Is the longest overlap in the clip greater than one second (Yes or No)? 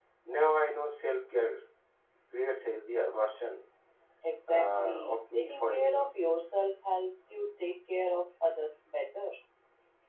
Yes